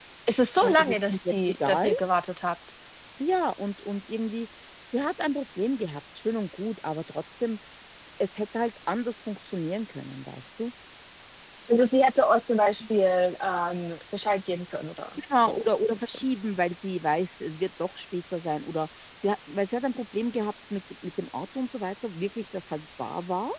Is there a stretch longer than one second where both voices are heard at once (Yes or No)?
Yes